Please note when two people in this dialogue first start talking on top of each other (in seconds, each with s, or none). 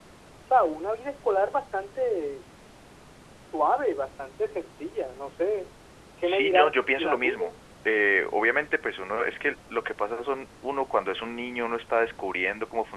6.2 s